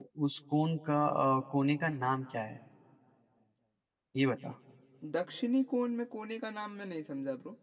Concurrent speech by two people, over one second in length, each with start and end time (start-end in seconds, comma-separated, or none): none